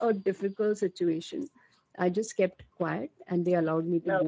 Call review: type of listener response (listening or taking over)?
listening